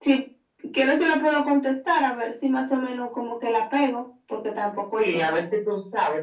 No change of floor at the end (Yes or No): No